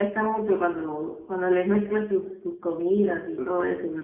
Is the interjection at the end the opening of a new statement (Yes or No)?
Yes